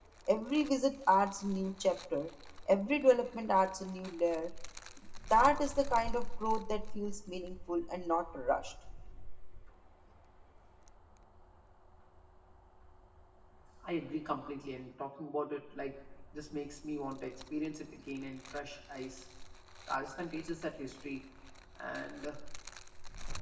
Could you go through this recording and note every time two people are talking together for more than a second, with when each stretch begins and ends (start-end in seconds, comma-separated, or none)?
none